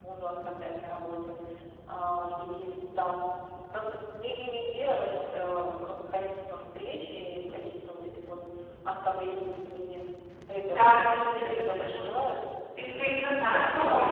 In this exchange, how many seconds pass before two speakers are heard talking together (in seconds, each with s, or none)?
10.7 s